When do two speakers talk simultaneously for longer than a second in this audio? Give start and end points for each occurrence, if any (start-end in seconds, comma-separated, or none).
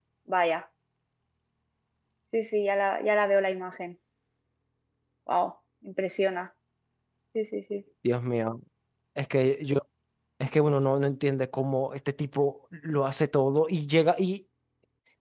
none